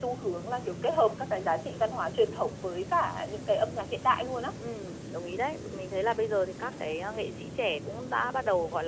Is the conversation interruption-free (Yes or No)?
Yes